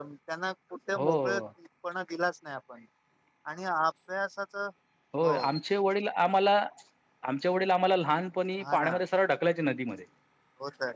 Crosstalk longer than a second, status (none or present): none